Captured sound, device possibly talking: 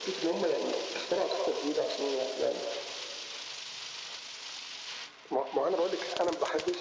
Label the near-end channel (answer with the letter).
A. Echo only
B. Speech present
A